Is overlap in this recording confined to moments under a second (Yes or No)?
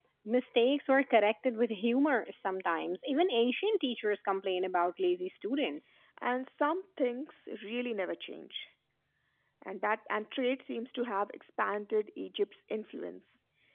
Yes